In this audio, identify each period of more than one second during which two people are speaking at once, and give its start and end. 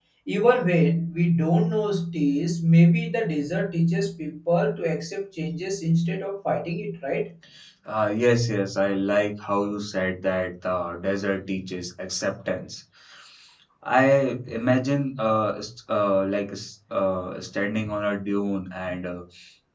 none

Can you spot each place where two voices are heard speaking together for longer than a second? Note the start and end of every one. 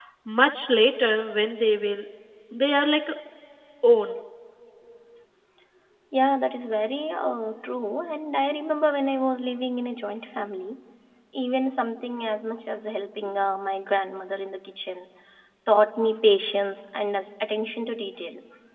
none

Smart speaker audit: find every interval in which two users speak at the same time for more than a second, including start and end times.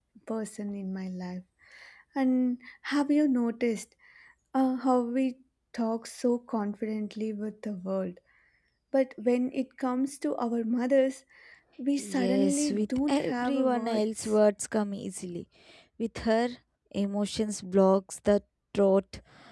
12.0-14.3

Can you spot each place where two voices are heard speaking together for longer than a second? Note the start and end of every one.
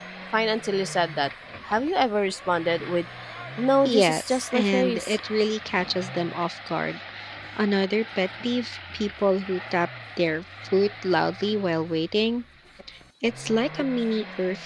3.8-5.2

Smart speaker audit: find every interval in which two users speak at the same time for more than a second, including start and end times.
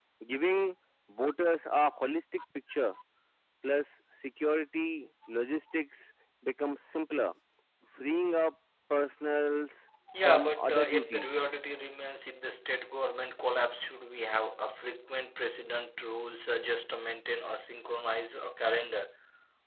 10.2-11.4

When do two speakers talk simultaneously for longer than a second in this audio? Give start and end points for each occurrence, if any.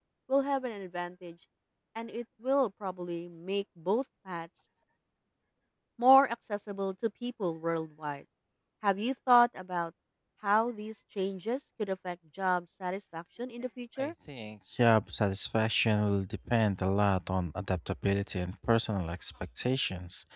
none

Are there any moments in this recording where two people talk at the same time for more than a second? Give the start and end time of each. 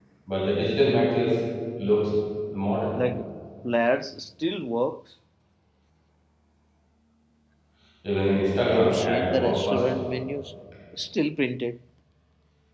8.7-10.0

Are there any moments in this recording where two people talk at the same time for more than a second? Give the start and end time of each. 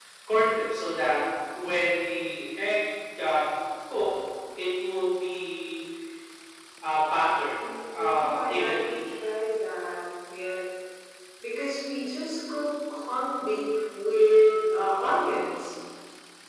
7.5-8.9

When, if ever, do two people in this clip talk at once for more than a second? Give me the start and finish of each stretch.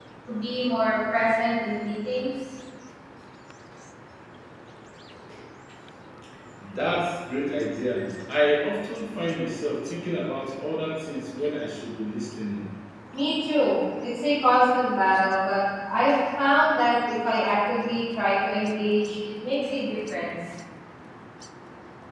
none

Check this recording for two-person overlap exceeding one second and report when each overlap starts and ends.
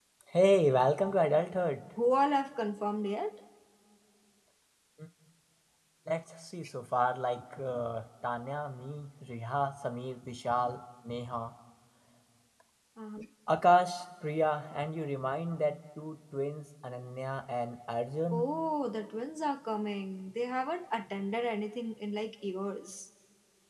none

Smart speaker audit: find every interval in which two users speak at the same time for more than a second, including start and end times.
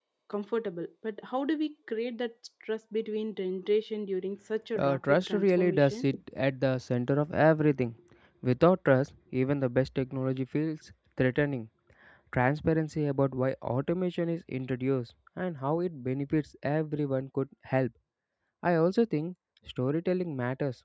4.8-6.1

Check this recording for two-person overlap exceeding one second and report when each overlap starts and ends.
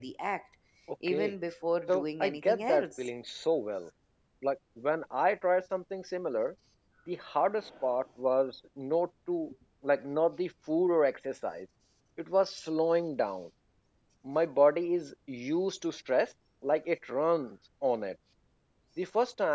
1.9-3.1

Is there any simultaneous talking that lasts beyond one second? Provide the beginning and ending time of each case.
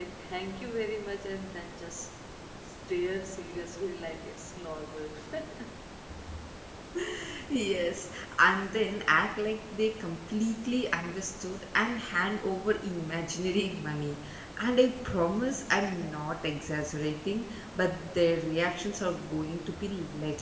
none

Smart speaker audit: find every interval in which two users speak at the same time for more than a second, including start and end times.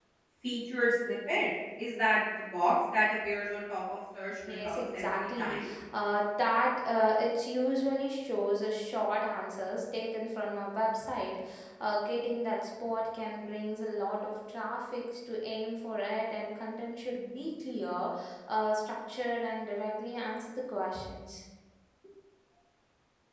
4.5-5.7

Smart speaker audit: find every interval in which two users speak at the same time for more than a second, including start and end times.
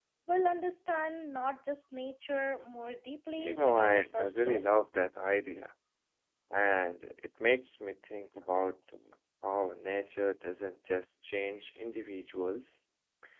3.4-4.6

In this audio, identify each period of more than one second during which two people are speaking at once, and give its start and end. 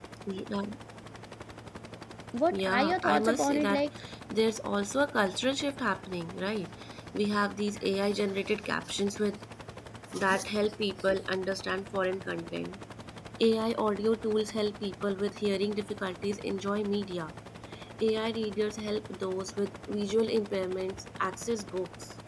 2.5-3.8

